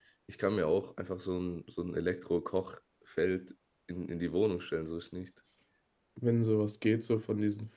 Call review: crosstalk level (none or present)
none